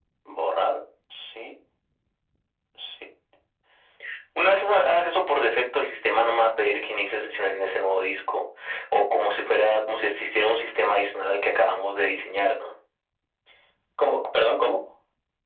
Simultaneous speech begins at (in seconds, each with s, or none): none